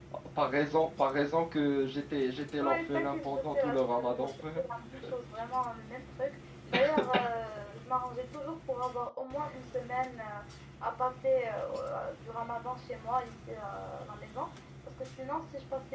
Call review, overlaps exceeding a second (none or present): present